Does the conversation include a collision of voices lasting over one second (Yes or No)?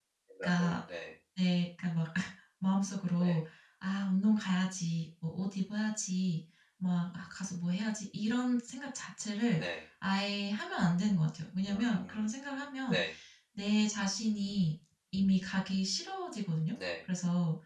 No